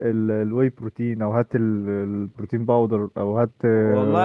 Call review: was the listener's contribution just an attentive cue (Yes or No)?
No